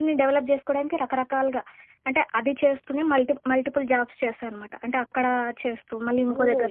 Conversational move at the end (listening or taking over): taking over